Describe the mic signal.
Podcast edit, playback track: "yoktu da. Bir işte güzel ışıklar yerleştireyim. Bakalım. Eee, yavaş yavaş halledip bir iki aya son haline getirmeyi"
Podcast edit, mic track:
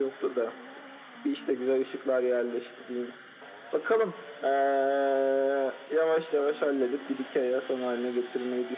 echo only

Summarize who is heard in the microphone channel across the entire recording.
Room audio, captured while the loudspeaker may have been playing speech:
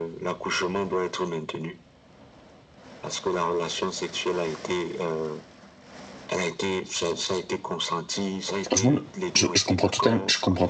both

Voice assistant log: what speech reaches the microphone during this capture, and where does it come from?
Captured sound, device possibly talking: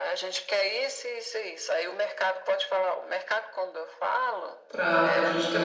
both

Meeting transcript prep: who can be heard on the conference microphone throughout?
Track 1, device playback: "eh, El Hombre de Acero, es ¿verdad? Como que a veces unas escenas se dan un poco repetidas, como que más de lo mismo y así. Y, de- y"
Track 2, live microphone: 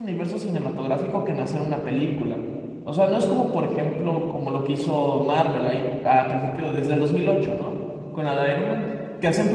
user only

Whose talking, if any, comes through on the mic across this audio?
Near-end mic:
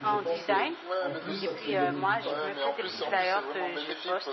both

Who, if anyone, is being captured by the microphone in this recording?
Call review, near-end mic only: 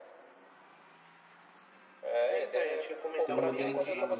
both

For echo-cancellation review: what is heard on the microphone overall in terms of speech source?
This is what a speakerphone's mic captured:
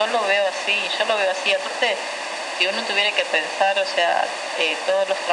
echo only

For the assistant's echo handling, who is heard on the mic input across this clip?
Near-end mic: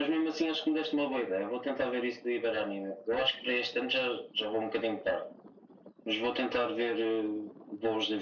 echo only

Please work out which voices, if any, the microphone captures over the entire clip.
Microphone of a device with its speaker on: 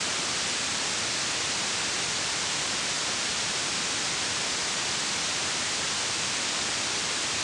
neither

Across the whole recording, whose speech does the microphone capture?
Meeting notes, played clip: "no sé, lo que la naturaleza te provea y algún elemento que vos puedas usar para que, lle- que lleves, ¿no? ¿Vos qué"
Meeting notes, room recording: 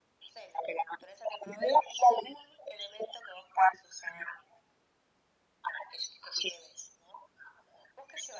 echo only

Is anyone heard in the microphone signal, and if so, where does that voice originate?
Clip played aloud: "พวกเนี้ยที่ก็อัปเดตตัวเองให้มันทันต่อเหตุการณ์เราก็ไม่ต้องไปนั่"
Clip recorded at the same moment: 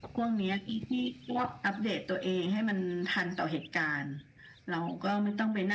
echo only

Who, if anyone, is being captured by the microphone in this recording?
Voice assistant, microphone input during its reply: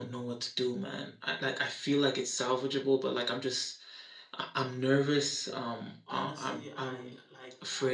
both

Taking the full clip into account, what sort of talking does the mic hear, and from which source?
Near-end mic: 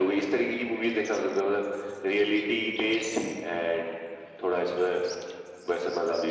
echo only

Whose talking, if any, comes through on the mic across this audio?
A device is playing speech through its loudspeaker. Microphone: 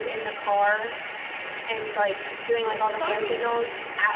both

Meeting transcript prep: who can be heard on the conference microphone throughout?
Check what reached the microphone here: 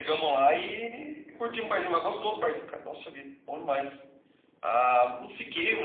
both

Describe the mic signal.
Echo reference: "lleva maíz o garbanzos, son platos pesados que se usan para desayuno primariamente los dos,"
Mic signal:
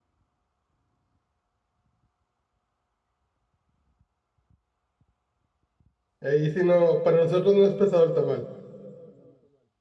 user only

